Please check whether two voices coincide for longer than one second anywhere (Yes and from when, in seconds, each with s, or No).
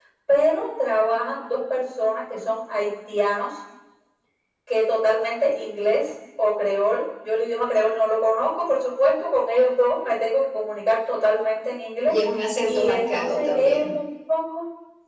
Yes, from 12.6 s